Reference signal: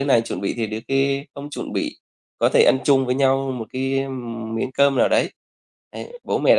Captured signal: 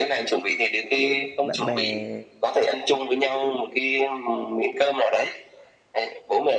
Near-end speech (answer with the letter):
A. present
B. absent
A